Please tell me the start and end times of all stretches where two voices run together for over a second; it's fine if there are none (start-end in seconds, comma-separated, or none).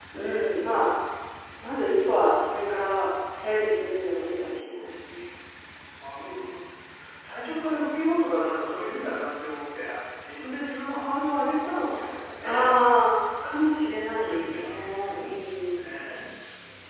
none